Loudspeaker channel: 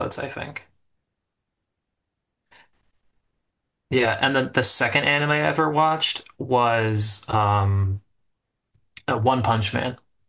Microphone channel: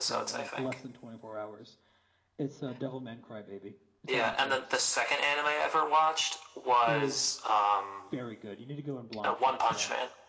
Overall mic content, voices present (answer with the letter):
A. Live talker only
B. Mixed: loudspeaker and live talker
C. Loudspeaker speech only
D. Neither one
B